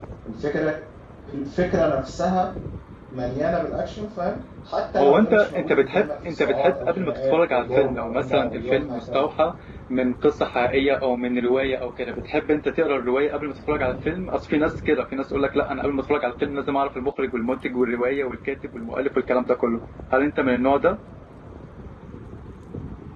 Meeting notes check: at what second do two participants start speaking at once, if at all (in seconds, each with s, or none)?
5.0 s